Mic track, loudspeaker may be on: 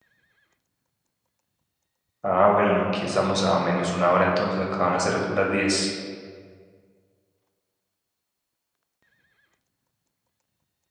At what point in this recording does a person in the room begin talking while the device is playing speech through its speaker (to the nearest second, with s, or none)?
2 s